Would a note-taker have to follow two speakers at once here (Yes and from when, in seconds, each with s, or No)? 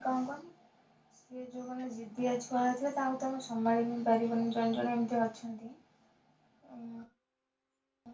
No